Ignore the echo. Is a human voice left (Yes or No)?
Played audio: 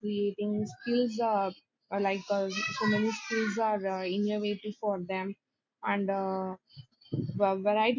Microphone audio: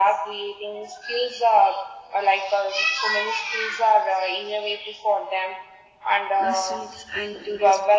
Yes